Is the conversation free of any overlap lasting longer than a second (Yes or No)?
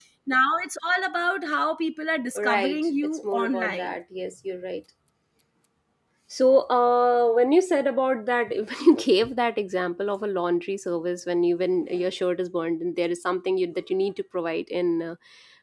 No